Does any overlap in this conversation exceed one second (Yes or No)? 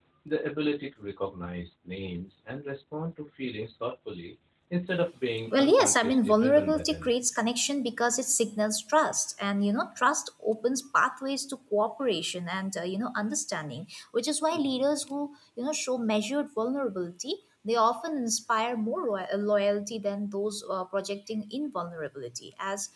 Yes